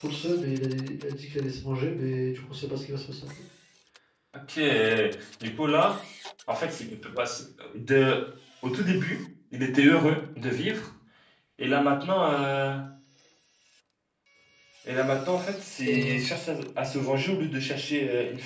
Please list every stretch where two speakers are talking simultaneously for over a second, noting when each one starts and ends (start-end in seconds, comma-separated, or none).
none